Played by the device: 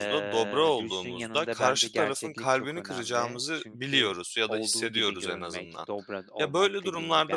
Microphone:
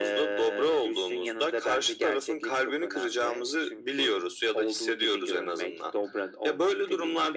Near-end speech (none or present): none